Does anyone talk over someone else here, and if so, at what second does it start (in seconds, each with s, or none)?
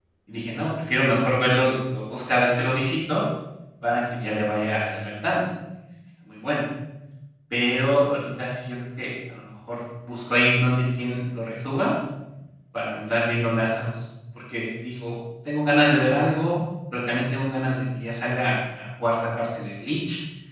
none